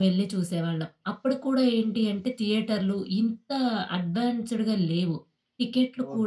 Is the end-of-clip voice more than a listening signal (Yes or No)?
No